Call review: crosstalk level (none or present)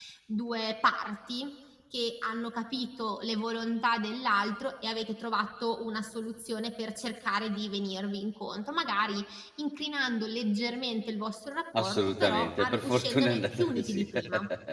present